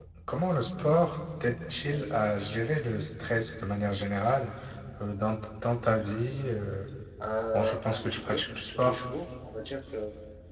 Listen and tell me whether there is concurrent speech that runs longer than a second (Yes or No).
Yes